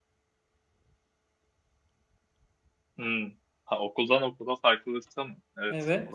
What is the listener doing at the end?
taking over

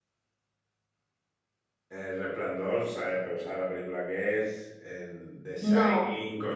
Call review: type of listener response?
listening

